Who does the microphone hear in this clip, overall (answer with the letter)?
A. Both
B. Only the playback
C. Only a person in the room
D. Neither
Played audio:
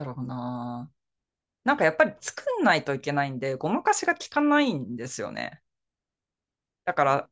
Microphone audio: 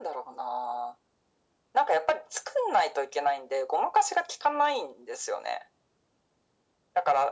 B